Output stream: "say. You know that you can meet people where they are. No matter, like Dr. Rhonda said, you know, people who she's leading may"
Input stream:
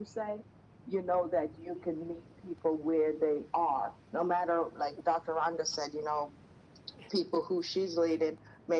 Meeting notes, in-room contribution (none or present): none